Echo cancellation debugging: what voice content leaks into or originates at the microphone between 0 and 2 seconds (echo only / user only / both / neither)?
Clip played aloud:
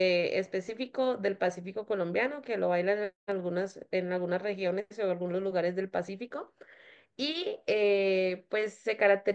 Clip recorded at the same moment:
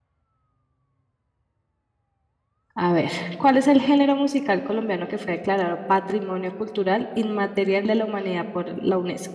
neither